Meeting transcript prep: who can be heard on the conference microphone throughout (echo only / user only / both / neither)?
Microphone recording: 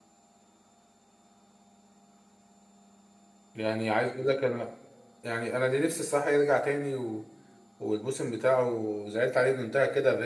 user only